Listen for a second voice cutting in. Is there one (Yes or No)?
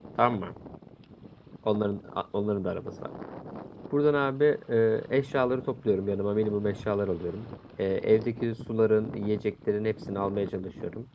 No